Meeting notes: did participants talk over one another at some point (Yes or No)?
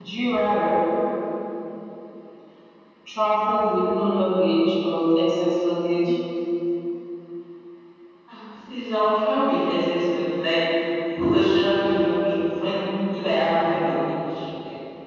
No